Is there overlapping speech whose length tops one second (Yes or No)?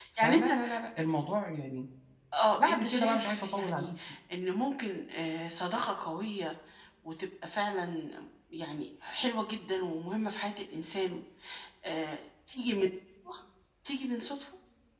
Yes